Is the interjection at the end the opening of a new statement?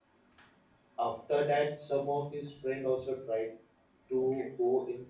No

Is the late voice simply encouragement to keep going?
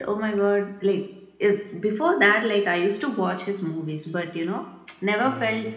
Yes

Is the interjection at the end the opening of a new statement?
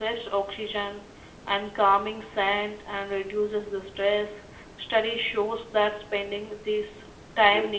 No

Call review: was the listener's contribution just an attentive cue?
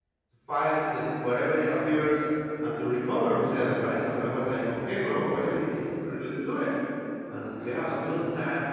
Yes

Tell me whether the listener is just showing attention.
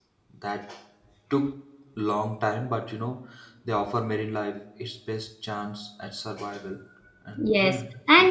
No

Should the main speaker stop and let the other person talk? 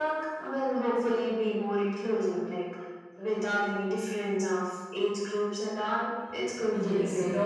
Yes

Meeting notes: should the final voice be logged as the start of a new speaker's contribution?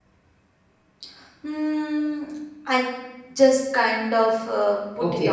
Yes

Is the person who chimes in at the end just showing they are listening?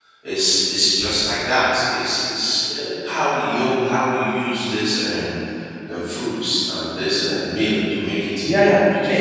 No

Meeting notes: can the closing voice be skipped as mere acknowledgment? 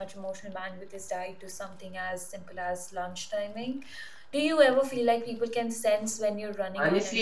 No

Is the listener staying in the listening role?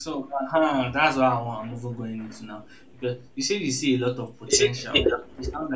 Yes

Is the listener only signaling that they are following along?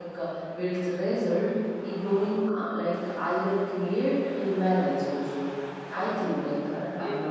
No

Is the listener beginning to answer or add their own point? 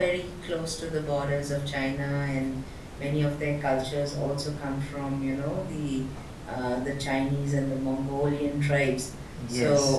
Yes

